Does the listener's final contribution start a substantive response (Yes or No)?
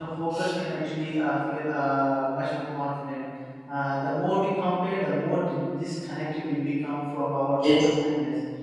No